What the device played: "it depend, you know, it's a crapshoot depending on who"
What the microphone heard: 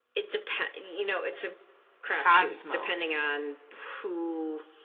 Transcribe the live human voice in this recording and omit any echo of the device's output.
Cosmos.

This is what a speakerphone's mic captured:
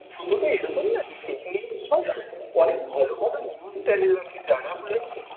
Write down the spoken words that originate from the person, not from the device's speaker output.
none

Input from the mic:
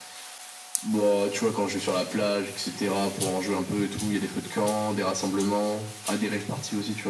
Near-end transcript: none

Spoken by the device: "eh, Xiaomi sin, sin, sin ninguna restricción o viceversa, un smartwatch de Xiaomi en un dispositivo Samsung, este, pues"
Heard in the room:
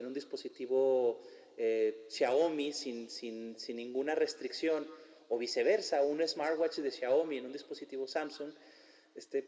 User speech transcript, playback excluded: none

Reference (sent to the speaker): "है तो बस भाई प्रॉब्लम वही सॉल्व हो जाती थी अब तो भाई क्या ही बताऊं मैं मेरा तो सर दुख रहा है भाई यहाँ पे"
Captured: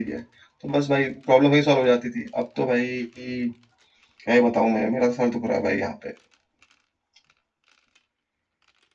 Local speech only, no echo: none

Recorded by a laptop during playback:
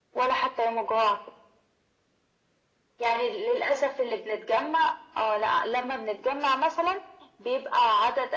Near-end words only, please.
none

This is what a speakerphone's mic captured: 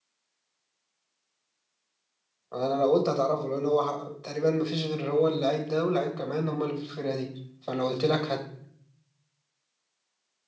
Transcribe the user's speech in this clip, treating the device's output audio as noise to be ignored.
انا لو قلت هتعرفه لان هو ح- تقريبا ما فيش غير هو اللعيب ده واللعيب كمان هم اللي في الفرقه دي فلو قلت لك هت...

